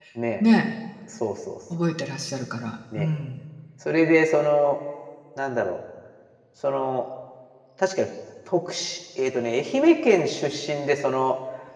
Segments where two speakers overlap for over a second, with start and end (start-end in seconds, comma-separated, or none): none